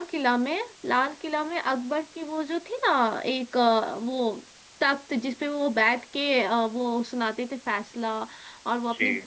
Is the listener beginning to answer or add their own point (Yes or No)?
No